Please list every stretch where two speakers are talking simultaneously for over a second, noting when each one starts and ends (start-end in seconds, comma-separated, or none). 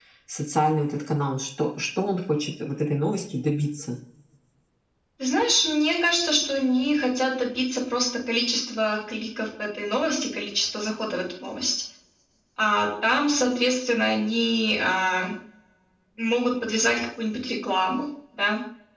none